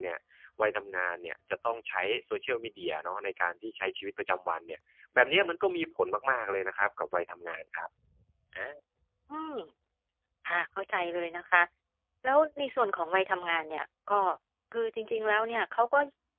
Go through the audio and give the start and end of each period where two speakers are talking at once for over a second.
none

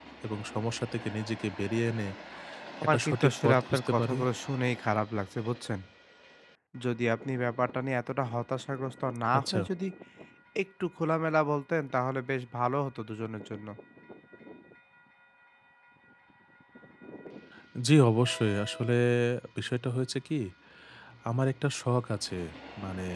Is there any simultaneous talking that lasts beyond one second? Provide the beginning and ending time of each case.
2.8-4.2

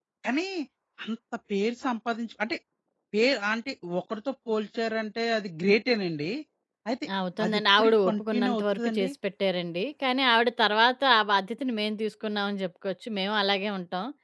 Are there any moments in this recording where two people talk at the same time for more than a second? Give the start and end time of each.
7.5-9.1

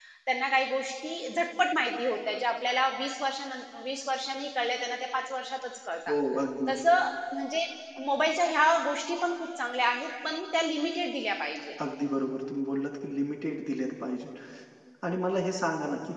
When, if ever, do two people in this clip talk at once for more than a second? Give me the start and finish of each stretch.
none

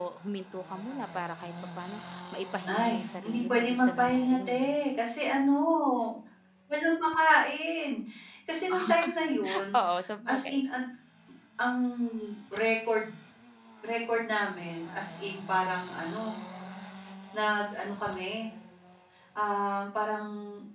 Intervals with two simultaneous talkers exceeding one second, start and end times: 2.8-4.7

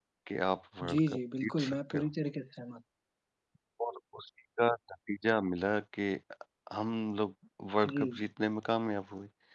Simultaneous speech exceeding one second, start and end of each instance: 0.9-2.1

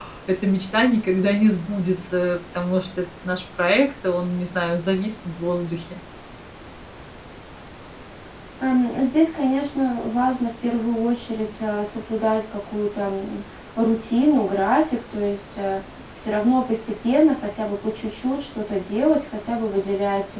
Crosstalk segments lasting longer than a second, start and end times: none

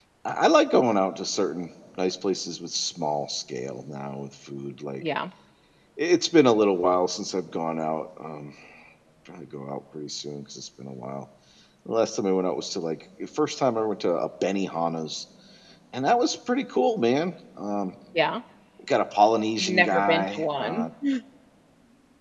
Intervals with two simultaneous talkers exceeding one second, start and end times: 19.6-20.9

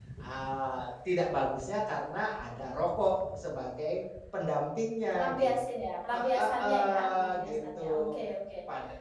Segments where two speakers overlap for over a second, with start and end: 6.2-8.2

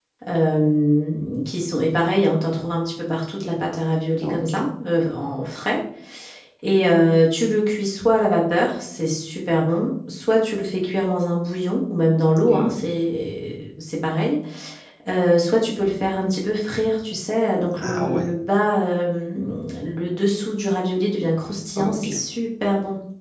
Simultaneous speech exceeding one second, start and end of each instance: none

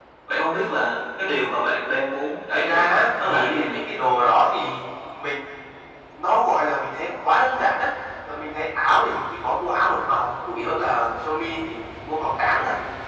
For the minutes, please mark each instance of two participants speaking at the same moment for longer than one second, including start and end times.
2.5-3.8

